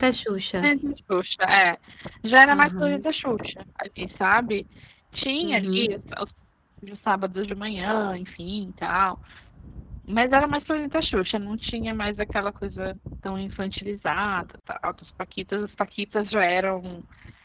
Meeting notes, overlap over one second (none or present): none